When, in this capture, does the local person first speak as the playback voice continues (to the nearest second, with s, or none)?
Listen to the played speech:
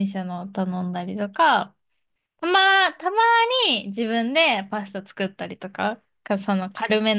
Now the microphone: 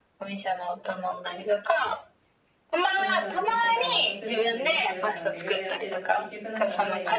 3 s